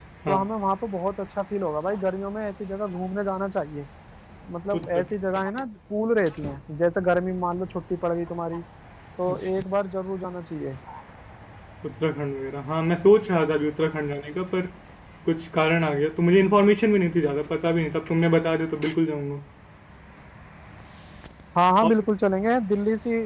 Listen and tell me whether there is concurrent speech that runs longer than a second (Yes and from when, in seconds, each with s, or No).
No